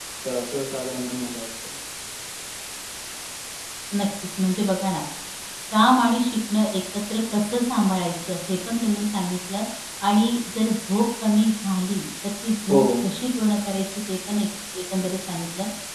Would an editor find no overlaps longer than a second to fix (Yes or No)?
Yes